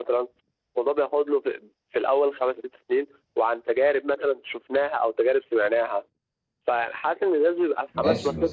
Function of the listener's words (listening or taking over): taking over